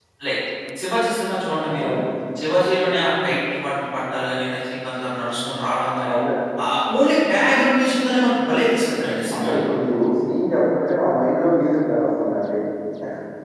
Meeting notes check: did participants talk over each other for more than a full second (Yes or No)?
No